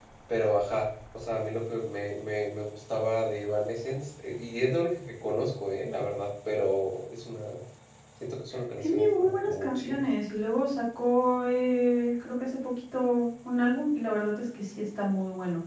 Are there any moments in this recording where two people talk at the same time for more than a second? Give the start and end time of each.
8.8-10.0

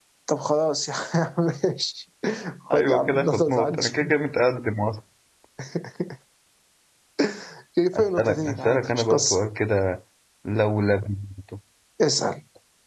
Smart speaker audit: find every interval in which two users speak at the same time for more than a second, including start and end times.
2.7-4.0, 8.0-9.4

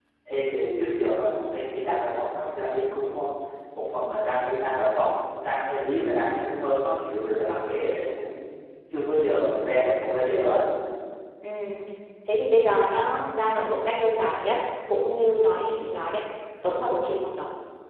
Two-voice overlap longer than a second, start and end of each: none

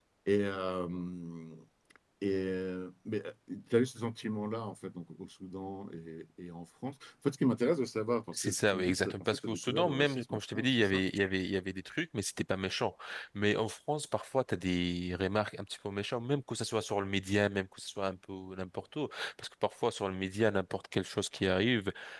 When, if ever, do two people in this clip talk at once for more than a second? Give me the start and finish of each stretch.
8.3-11.0

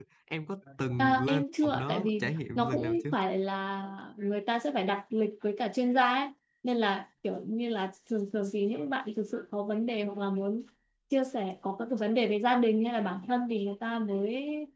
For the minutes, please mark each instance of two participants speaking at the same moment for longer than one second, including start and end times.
1.0-3.0

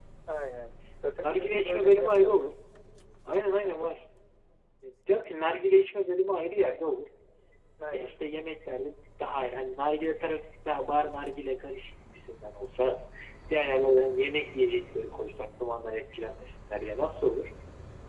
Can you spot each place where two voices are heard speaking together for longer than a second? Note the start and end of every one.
1.2-2.5

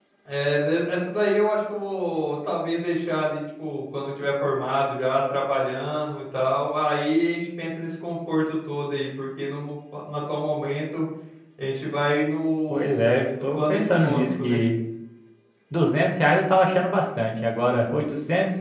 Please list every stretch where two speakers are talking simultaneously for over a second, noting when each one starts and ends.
12.7-14.6

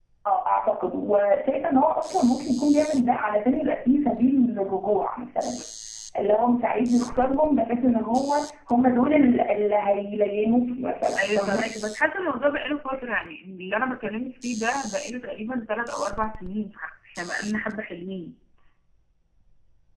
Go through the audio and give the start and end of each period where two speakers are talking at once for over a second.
none

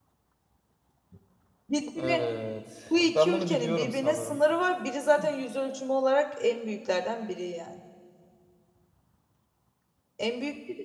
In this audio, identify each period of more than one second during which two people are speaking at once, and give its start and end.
3.1-4.4

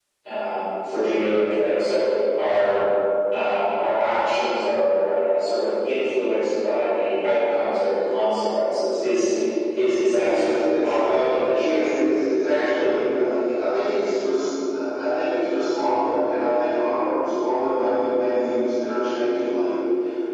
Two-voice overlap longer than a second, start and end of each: 10.2-11.9

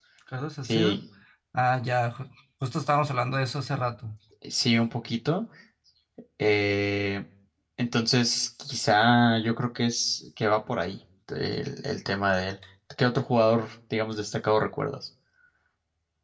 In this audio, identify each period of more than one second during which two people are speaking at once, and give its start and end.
none

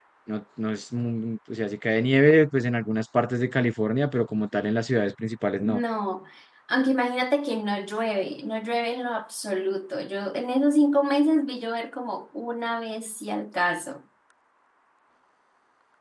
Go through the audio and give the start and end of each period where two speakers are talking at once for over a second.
none

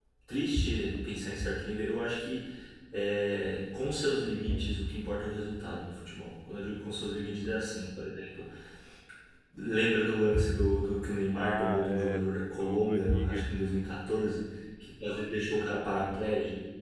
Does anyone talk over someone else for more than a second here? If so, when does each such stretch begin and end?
11.4-13.5

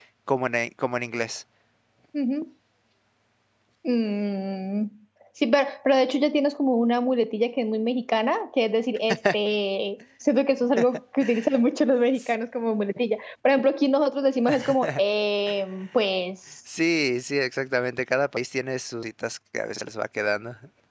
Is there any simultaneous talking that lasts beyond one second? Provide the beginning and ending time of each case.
none

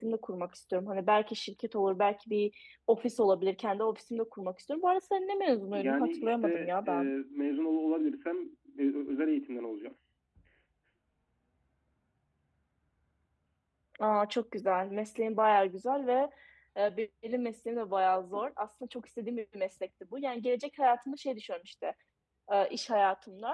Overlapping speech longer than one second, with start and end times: 5.7-7.1

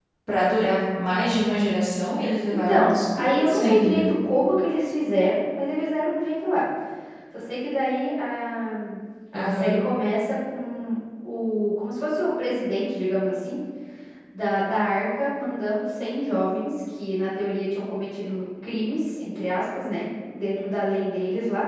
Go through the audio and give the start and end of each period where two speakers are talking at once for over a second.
2.5-4.0

